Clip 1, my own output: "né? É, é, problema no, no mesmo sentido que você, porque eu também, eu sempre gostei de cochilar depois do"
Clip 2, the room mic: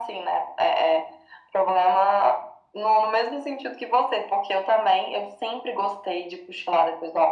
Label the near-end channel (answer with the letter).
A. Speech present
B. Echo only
B